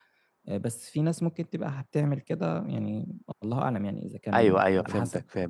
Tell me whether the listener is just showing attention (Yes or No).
No